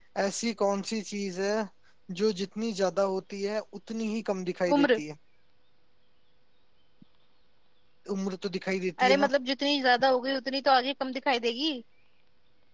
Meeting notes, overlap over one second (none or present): none